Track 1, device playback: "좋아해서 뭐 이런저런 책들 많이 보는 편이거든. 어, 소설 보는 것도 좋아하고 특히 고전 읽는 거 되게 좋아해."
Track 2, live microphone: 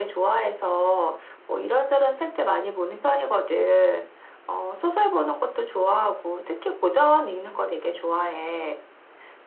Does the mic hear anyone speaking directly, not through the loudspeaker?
No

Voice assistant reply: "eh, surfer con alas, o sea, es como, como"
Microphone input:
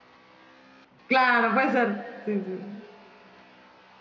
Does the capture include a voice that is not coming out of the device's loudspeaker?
Yes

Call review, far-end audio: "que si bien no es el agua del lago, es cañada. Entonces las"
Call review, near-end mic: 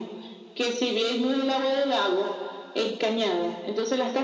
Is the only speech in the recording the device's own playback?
Yes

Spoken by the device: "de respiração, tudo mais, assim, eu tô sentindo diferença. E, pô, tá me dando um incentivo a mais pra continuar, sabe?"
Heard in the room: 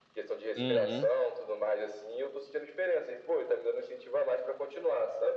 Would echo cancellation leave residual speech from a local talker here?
Yes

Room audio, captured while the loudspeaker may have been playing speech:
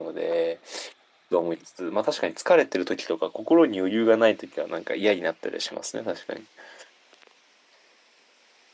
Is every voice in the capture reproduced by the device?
No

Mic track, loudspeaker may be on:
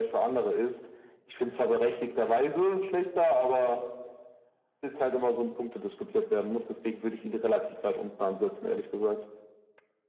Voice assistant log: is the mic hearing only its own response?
Yes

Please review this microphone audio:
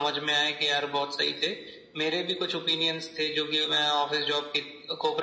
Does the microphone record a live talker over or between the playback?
No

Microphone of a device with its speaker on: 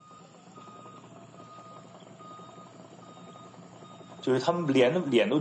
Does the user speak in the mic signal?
Yes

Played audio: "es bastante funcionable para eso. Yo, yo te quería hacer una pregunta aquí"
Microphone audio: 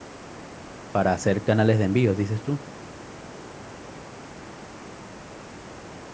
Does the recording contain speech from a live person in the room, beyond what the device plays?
Yes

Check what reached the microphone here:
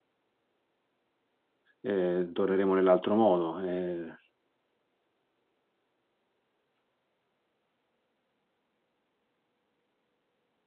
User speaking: Yes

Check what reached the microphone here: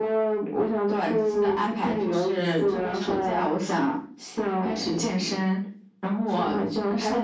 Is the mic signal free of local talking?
Yes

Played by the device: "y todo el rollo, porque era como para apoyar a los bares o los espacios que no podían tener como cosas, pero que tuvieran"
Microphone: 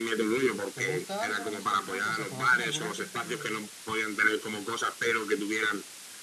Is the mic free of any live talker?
No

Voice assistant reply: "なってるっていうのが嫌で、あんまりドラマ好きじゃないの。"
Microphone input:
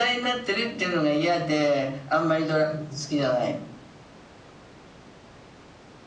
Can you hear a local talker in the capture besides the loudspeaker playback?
No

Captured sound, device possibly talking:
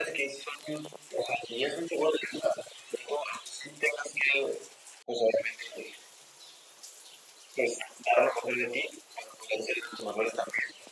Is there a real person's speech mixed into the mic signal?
No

